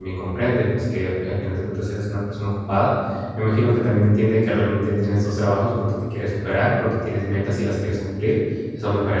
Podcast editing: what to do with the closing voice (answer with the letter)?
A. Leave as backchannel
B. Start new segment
A